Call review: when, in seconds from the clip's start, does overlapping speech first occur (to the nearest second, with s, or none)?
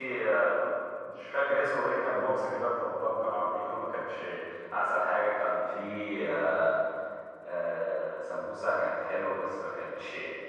none